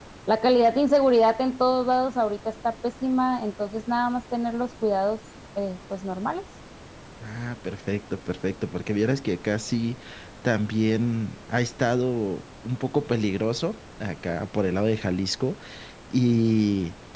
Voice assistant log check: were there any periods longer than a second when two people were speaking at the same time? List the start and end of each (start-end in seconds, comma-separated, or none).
none